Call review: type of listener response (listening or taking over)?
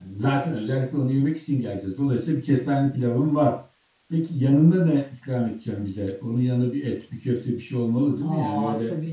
taking over